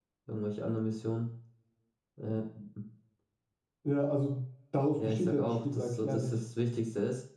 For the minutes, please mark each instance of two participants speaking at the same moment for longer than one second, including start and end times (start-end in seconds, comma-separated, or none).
5.0-6.4